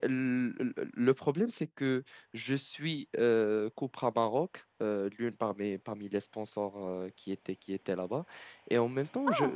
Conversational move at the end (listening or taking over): listening